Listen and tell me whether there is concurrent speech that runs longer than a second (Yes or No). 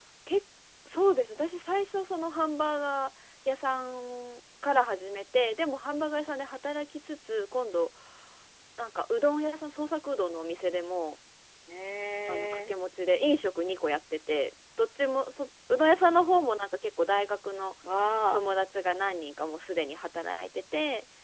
No